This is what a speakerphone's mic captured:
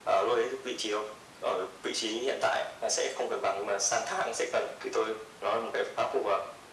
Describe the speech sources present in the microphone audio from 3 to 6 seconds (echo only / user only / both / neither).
echo only